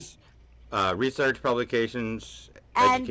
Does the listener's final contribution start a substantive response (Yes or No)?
Yes